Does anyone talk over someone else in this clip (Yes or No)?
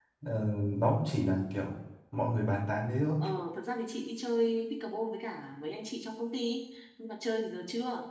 No